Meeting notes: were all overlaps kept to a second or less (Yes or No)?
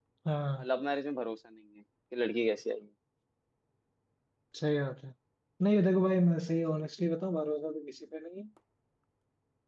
Yes